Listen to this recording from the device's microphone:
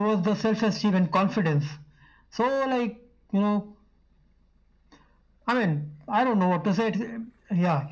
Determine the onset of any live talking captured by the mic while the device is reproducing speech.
none

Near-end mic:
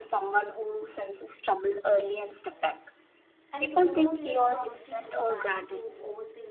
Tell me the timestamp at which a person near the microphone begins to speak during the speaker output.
4 s

